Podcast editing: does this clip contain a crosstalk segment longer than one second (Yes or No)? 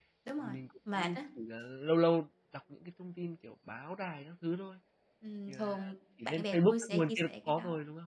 Yes